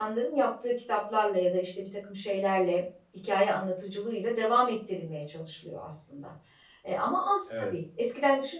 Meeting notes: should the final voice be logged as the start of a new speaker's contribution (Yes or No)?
No